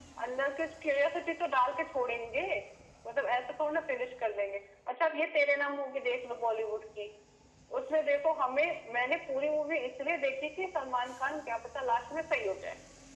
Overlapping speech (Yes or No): No